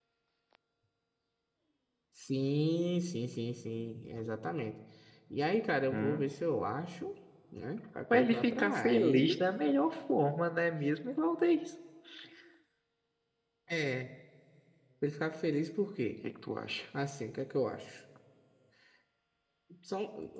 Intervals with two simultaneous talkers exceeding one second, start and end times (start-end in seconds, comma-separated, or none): 8.1-9.4